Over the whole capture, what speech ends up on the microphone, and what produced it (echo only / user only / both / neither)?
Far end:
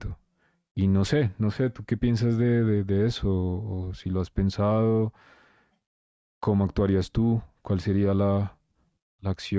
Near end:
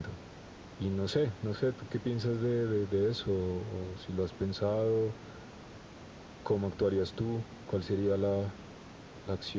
echo only